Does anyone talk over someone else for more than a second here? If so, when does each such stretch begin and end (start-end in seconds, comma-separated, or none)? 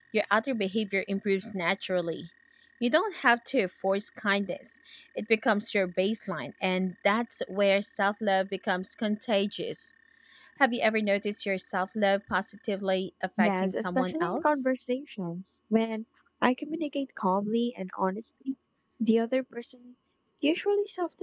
13.4-14.6